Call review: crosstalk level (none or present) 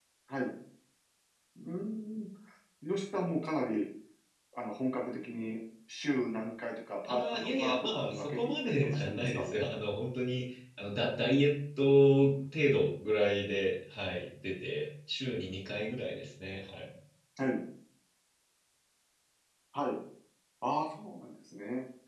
present